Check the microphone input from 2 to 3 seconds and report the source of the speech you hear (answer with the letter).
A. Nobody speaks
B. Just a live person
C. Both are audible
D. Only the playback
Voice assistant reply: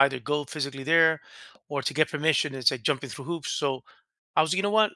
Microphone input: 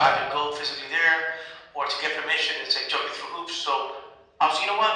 D